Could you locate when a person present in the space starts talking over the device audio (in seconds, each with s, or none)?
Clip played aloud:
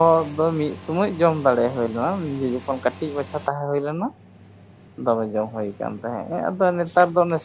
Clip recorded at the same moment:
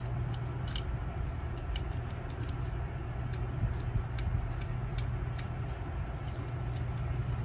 none